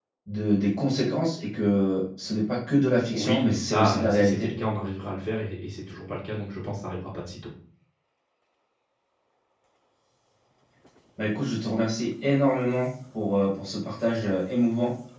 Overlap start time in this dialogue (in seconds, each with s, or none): 3.1 s